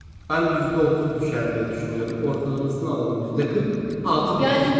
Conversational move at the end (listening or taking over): taking over